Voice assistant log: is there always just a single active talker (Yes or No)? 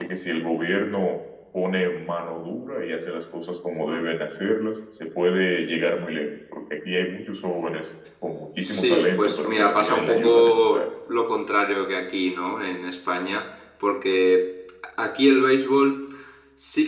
No